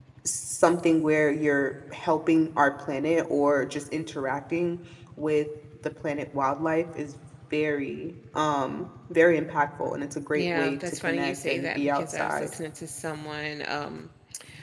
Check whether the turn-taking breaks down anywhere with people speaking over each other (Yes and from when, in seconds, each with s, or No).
Yes, from 10.4 s